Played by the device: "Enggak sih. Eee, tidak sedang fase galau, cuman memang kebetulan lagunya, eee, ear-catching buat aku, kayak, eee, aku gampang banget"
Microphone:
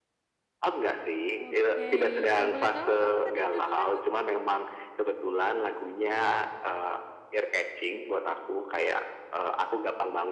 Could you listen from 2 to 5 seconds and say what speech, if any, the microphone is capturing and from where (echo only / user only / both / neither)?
both